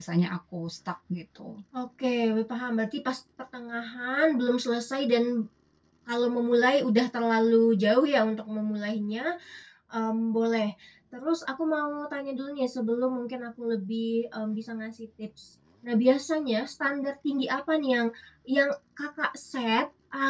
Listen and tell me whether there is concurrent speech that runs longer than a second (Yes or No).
No